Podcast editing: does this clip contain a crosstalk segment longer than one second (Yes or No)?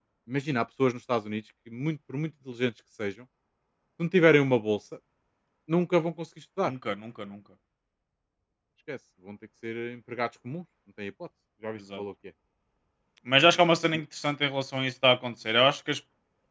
No